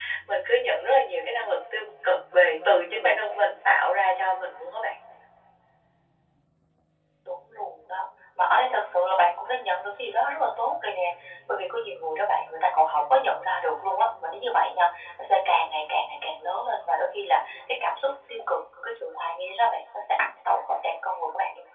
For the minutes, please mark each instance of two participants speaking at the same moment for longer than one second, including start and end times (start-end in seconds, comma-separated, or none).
none